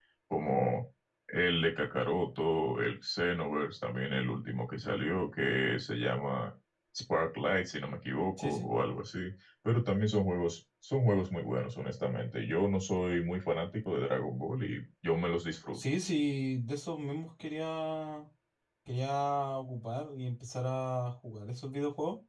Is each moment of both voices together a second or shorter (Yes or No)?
Yes